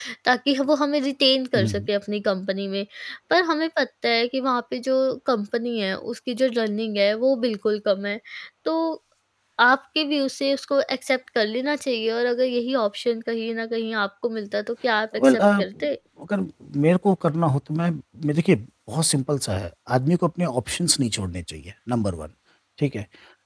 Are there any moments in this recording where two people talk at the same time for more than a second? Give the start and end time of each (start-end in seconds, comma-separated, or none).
none